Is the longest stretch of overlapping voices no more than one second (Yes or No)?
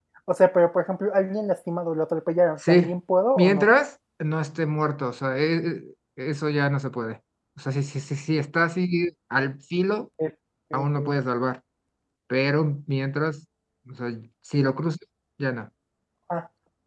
Yes